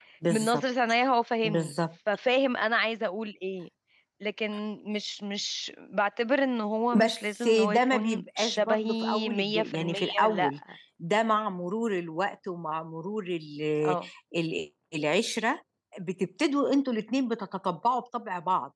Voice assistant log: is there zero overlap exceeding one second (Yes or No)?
No